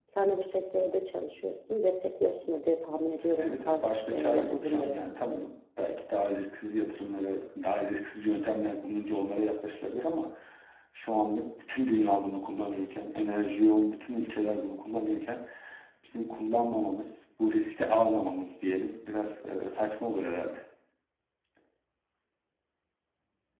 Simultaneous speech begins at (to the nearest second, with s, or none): 3 s